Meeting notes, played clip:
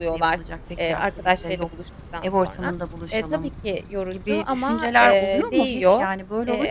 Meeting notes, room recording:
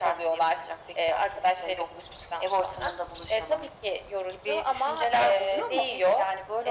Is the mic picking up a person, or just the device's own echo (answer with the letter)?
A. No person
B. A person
A